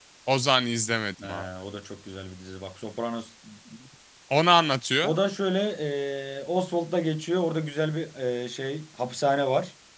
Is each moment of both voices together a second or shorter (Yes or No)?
Yes